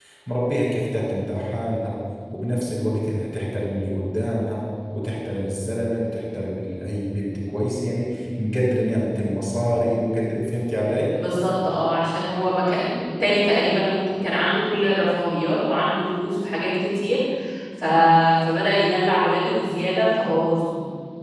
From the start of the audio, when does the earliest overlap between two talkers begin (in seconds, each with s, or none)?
none